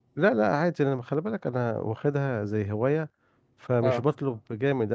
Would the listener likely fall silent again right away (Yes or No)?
Yes